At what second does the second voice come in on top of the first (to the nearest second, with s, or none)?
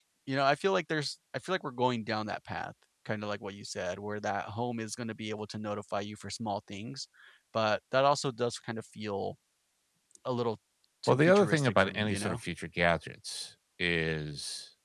11 s